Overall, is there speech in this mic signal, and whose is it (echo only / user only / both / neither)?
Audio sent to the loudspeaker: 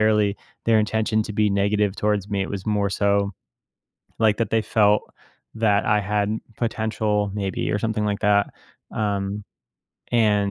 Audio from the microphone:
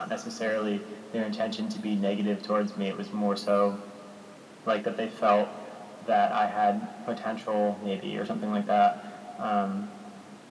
echo only